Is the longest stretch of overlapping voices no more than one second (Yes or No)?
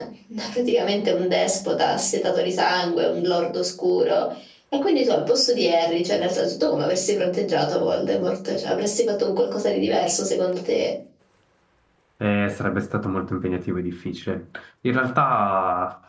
Yes